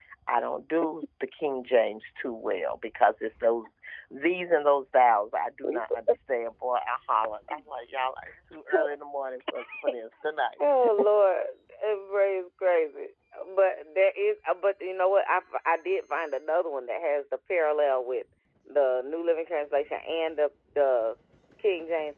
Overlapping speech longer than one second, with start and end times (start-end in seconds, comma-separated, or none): none